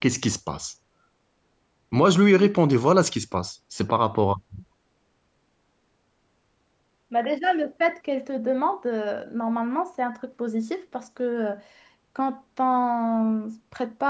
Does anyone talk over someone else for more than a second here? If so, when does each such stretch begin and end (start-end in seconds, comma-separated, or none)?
none